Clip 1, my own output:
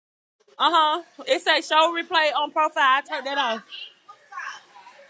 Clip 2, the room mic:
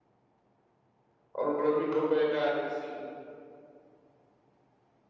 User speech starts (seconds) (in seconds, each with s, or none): 1.3 s